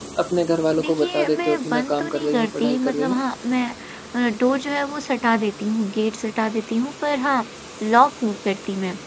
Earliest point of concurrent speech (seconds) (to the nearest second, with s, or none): 1 s